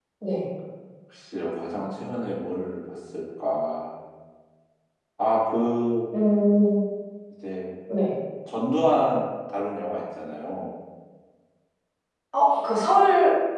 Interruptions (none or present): none